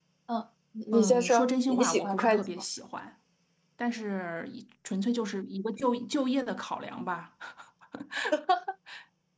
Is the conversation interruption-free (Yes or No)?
No